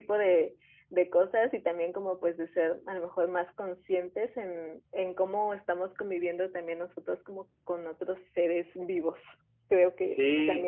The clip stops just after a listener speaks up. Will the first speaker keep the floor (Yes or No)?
No